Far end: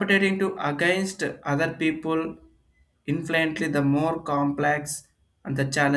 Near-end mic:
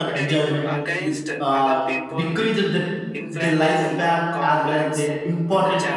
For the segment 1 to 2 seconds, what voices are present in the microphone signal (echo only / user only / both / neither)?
both